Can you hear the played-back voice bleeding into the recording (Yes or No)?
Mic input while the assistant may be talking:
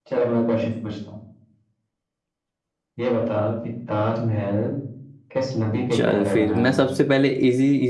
Yes